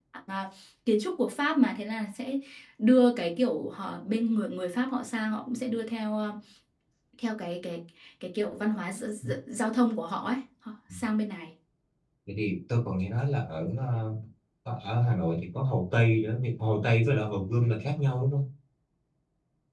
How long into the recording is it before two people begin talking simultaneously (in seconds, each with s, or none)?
none